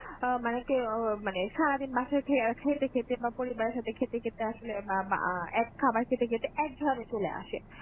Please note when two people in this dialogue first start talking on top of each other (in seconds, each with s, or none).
none